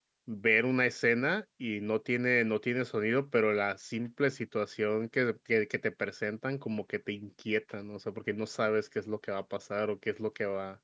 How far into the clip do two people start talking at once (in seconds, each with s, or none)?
none